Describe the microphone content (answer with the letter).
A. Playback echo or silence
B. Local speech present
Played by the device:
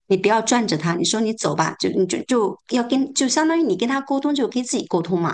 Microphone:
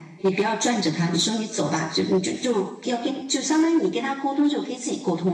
A